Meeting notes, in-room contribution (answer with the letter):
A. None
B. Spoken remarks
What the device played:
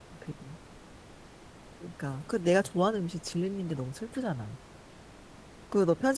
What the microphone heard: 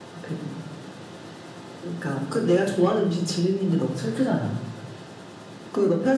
A